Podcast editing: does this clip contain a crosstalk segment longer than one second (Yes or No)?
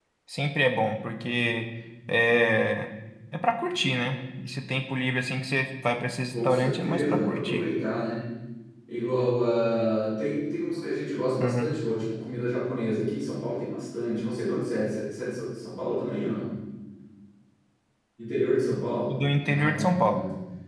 Yes